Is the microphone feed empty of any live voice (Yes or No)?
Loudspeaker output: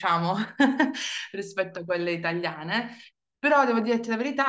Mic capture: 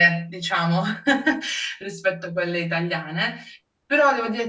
Yes